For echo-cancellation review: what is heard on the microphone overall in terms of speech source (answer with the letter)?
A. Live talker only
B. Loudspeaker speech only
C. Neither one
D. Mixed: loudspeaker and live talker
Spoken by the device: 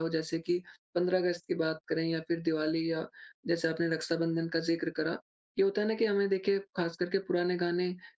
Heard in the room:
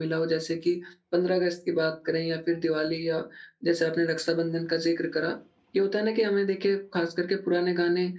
B